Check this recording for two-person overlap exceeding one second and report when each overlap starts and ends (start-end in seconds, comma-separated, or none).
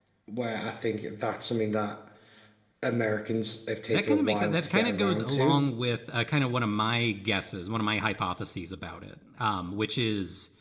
3.9-5.6